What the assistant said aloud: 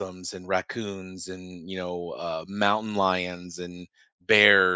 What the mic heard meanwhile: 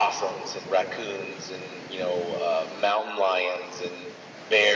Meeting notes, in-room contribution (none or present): none